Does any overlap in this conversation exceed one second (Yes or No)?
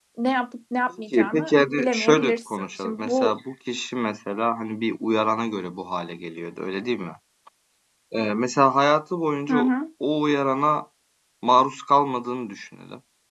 Yes